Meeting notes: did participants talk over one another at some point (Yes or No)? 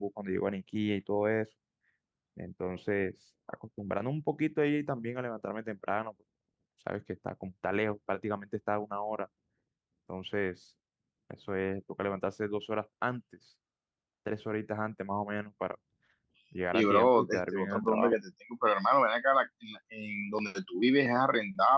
Yes